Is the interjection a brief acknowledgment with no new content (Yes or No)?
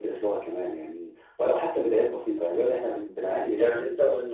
No